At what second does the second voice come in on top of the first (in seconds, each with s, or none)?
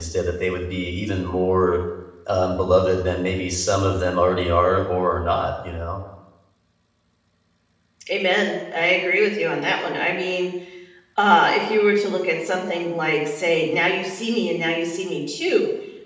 none